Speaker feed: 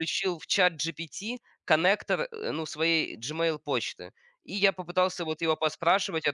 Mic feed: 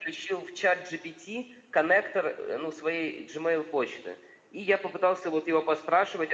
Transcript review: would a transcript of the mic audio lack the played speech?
No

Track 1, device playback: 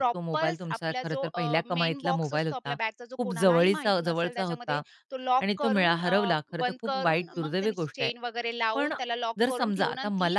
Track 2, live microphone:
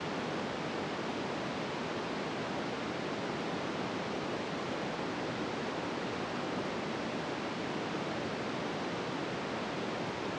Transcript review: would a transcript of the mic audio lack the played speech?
Yes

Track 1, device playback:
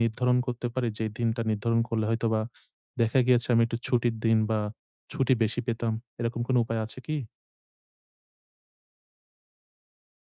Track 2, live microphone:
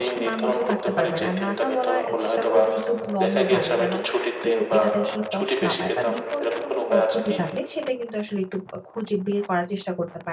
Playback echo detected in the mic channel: Yes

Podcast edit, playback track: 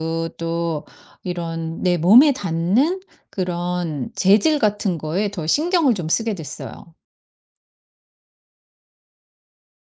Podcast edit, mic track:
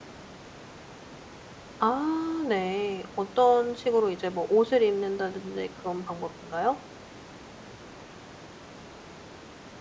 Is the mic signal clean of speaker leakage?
Yes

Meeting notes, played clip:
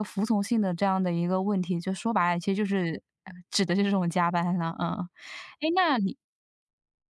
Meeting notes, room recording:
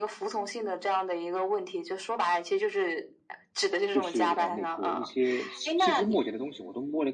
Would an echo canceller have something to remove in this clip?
Yes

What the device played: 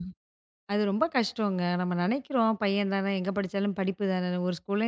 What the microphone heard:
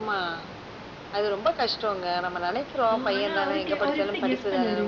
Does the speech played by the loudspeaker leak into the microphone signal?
Yes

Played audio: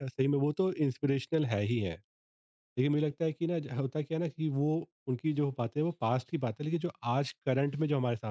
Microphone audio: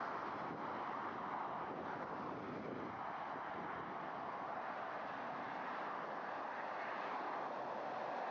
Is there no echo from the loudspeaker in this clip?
Yes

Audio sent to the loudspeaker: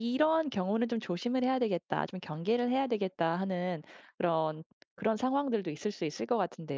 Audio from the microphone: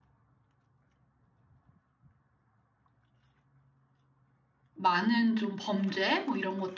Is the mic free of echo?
Yes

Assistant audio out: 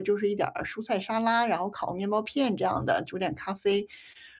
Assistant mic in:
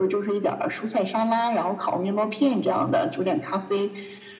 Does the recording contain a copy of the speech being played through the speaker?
Yes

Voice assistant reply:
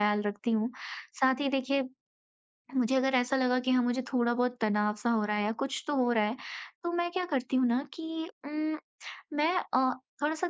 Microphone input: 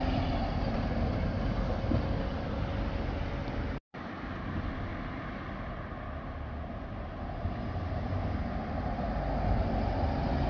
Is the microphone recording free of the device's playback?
Yes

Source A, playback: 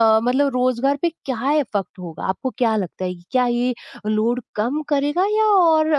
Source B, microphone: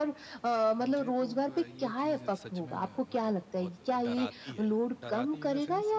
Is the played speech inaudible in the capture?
No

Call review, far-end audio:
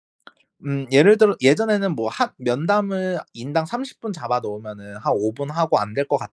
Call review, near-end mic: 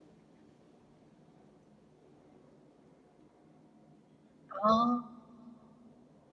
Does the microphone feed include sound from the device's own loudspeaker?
No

